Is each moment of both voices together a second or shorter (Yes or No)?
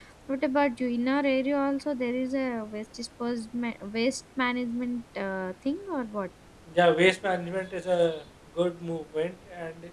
Yes